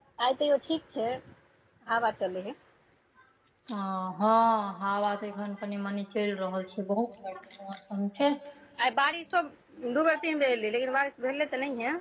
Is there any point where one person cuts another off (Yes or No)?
No